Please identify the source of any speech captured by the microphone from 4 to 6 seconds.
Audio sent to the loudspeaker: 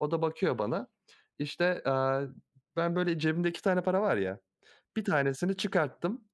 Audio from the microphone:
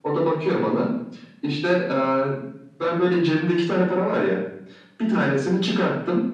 echo only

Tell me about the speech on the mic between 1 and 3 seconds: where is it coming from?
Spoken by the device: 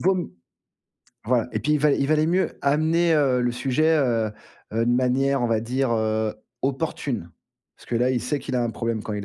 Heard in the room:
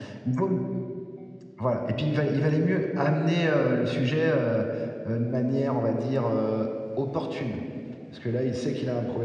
echo only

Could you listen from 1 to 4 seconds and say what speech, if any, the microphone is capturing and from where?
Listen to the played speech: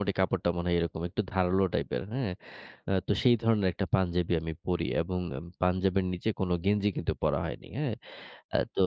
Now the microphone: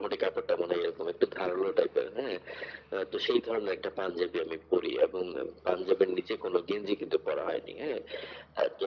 echo only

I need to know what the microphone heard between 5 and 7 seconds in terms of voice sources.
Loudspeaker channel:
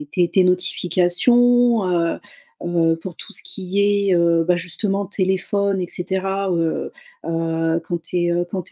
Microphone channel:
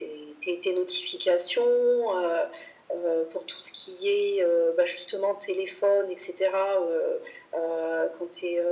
echo only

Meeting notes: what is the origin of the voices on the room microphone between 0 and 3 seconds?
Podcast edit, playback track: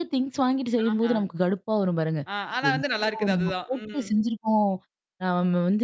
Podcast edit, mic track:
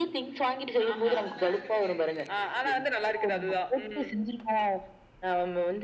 both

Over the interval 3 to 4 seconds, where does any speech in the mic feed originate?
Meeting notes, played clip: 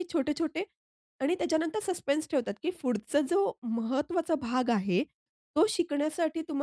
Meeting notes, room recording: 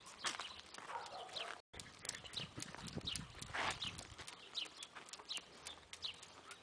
neither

